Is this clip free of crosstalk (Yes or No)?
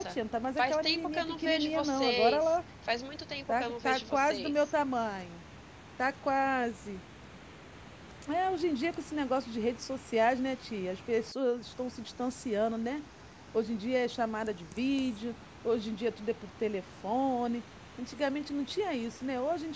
No